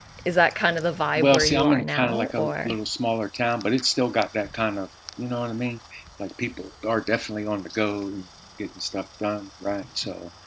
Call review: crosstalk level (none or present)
present